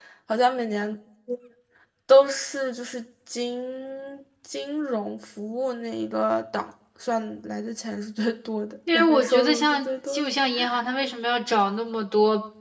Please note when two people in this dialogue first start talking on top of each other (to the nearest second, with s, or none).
9 s